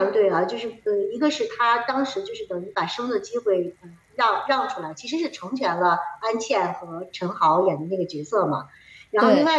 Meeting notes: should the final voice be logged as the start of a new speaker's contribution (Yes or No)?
No